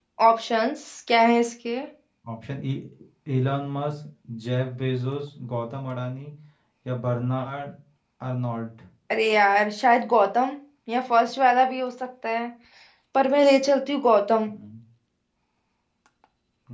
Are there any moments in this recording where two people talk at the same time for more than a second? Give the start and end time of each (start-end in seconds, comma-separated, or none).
none